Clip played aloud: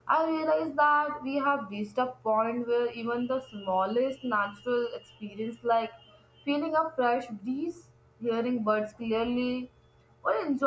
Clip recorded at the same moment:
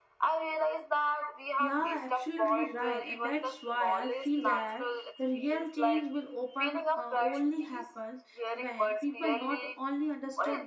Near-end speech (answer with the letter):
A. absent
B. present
B